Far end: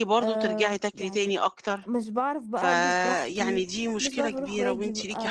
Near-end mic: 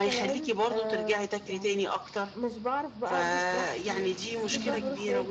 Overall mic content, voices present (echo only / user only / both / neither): both